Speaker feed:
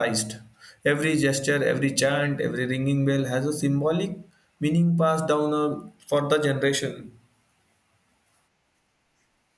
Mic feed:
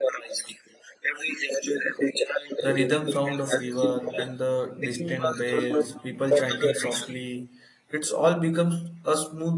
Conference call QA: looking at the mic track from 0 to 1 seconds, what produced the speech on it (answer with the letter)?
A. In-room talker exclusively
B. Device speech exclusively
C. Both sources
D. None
B